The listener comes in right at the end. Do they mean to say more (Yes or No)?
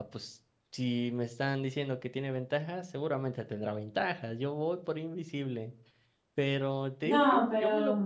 No